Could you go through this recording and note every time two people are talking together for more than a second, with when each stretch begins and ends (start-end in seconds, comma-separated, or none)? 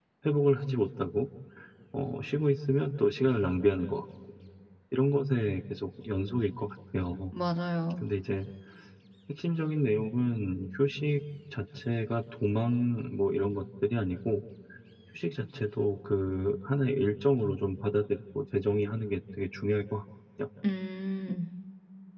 none